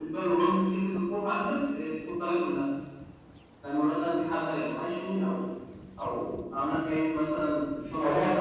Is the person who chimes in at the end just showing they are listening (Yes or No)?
No